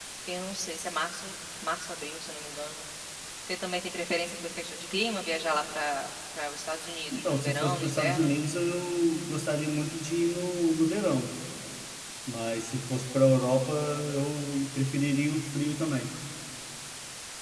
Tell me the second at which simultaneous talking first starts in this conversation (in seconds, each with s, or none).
7.1 s